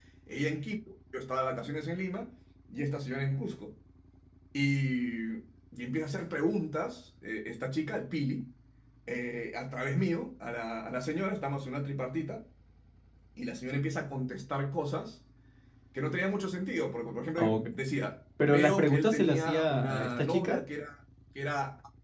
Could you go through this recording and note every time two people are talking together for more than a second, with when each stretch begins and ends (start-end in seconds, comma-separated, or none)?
18.5-20.6